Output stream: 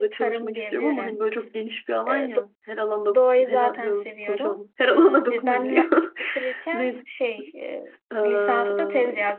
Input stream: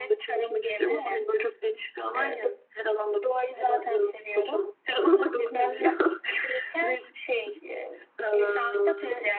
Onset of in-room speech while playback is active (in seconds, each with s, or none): none